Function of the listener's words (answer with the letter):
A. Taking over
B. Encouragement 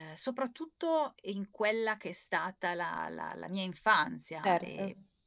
B